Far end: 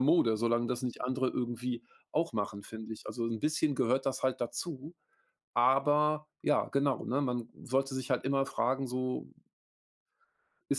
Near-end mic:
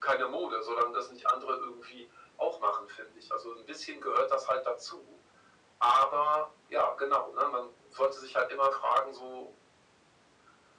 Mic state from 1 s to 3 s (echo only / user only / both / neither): echo only